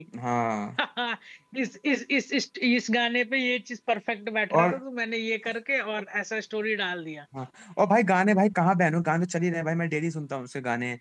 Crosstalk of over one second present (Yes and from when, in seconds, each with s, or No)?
No